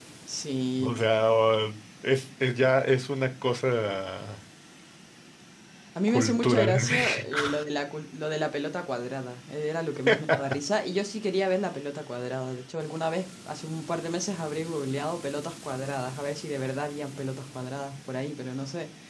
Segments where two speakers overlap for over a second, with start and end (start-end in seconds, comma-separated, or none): 6.1-7.5